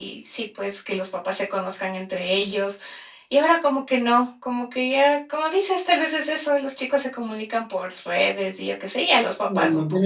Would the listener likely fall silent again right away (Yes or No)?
No